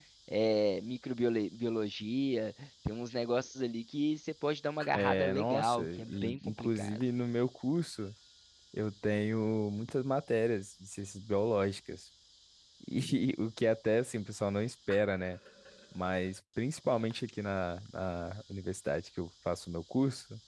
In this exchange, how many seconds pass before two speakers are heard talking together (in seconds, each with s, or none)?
4.9 s